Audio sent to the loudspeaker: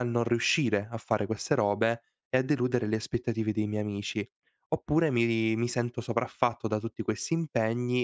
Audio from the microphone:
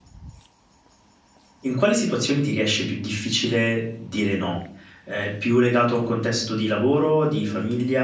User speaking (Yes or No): Yes